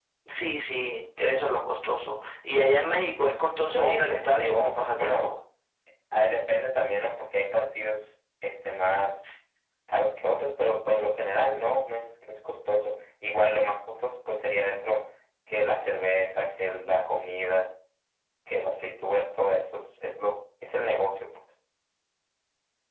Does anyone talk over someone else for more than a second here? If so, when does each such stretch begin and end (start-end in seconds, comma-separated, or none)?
3.7-5.3